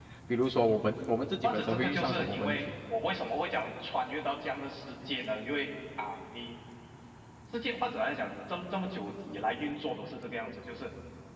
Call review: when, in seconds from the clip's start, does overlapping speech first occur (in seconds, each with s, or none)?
1.4 s